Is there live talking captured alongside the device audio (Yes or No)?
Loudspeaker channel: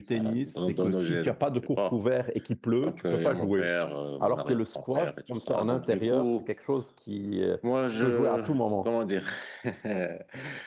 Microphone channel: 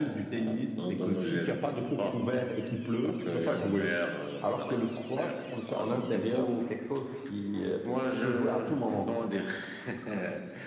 No